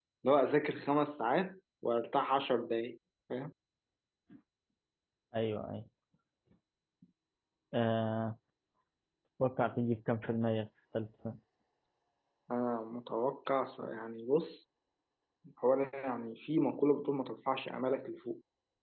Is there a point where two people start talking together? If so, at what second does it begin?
none

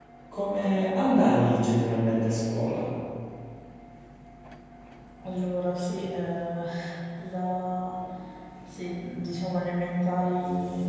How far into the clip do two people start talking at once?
none

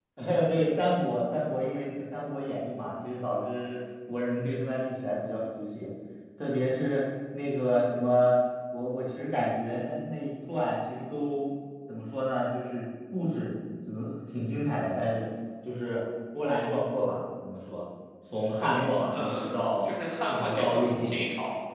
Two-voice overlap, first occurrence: 18.6 s

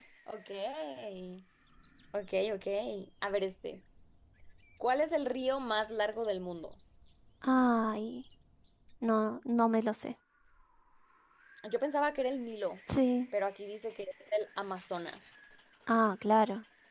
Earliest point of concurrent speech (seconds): none

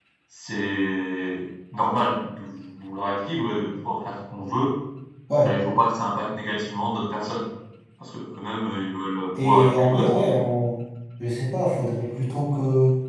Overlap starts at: 9.3 s

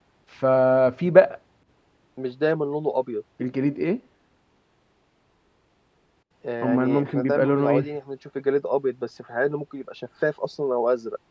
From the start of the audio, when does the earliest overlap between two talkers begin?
6.6 s

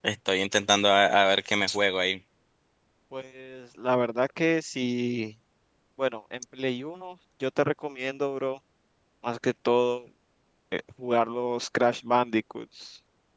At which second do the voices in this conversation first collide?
none

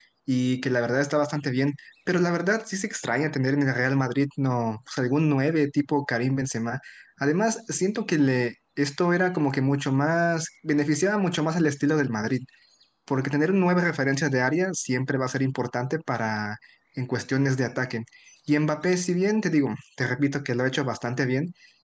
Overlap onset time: none

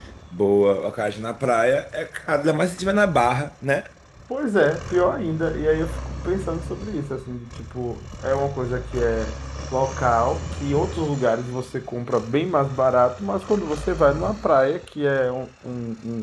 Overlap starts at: none

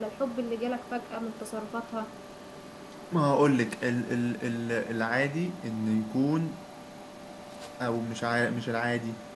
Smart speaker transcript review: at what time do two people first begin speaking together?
none

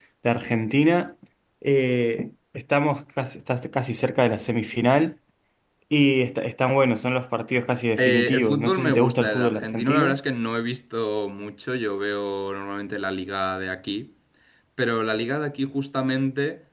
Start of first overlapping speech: 8.0 s

